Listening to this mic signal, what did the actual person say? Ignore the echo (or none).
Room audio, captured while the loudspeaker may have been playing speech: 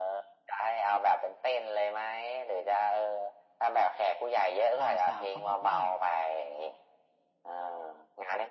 บ่าวสาวเขาบอกว่า